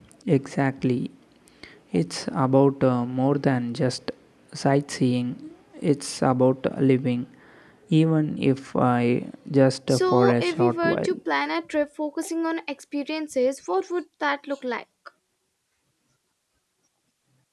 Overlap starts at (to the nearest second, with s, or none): 10 s